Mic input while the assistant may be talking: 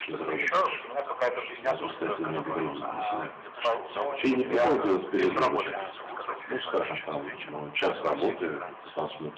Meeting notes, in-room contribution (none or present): present